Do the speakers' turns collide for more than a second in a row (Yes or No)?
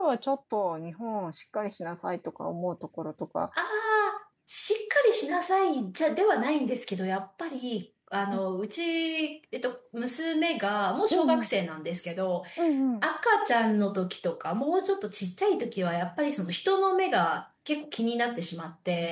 No